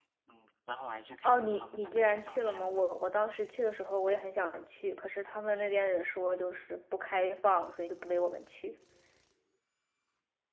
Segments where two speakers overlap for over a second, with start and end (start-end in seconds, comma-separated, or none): 1.2-2.9